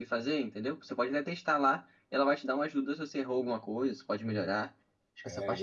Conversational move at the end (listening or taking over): taking over